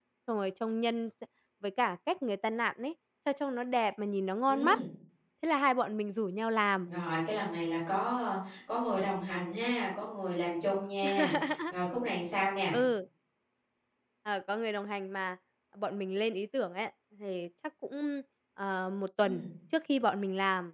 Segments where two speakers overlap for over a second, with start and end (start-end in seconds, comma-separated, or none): none